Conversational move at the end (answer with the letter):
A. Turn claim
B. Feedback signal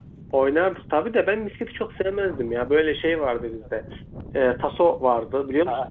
A